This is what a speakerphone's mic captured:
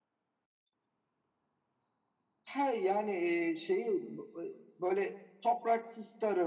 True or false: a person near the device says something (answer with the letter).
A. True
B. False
B